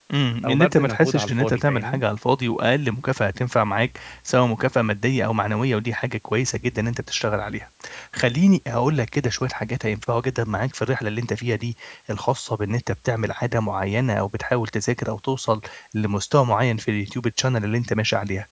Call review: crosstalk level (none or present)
present